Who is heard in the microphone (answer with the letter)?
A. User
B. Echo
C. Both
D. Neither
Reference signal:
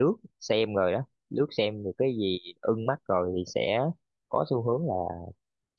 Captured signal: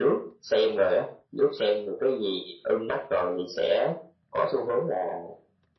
B